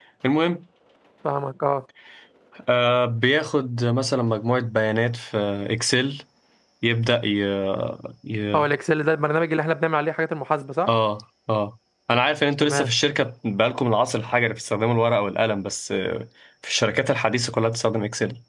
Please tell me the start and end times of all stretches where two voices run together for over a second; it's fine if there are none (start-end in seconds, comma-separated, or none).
none